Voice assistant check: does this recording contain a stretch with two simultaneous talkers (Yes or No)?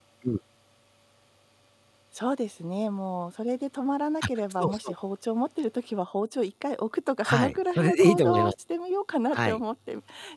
Yes